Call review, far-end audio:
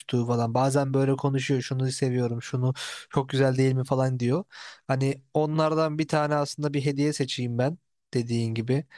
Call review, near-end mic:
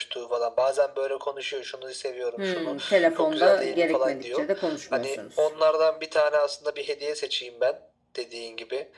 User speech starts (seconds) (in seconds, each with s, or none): 2.4 s